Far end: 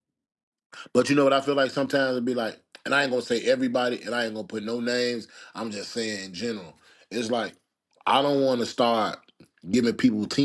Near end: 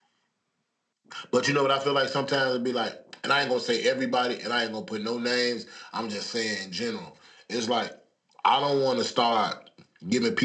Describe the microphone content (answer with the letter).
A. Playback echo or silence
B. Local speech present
A